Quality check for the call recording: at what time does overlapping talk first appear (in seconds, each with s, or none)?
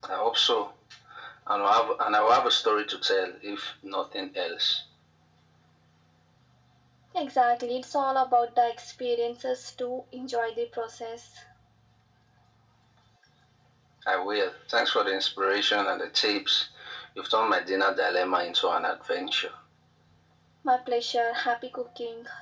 none